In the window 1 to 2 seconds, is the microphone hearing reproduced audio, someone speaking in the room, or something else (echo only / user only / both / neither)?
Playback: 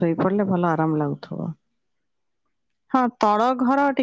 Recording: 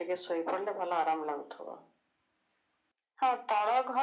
echo only